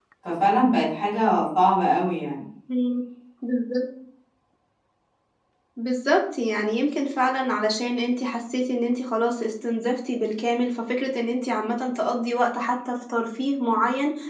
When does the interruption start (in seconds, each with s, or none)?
none